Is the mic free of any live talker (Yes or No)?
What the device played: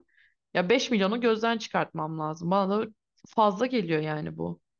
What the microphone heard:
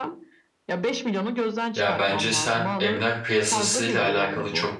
No